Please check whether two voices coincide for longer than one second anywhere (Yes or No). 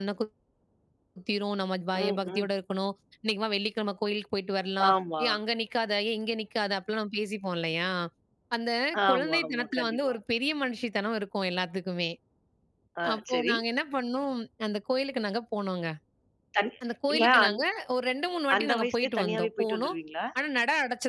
Yes